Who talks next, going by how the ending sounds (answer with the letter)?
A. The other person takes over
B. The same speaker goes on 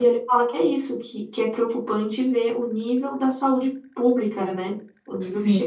B